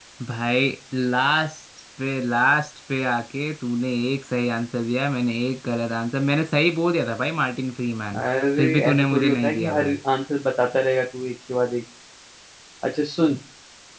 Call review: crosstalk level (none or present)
present